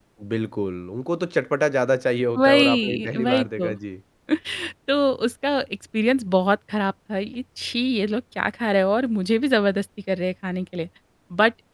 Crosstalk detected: Yes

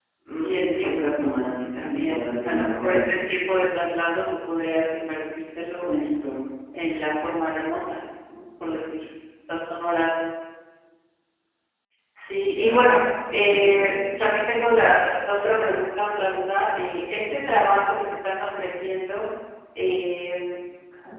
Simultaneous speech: Yes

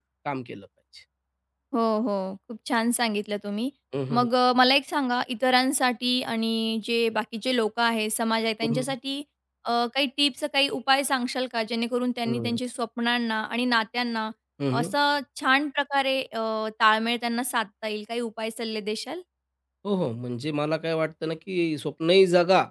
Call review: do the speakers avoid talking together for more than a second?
Yes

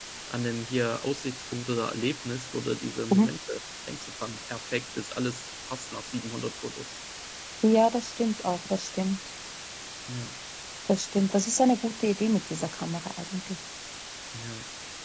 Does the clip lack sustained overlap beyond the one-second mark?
Yes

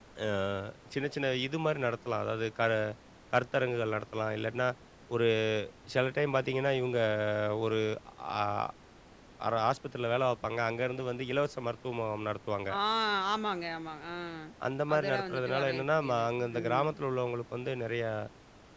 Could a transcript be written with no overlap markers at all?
No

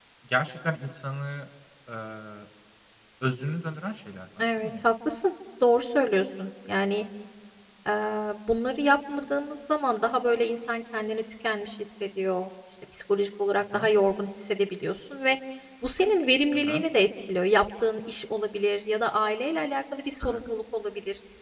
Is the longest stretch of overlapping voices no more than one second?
Yes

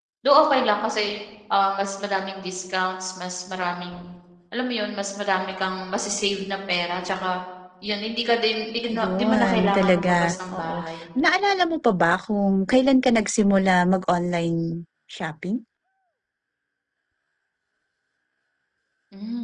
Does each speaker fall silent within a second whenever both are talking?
No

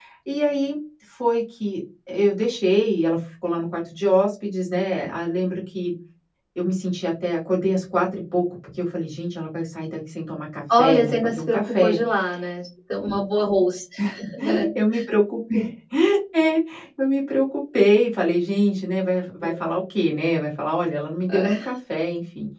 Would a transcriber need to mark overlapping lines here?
Yes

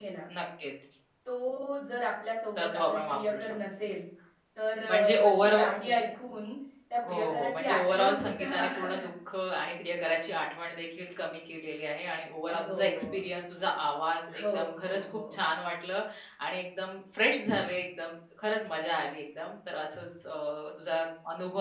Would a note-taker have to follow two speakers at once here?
Yes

